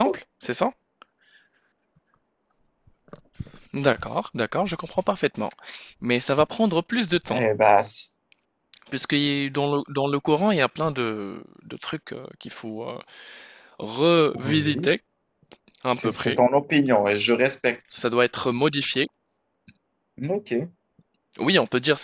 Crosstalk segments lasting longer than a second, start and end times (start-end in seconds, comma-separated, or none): none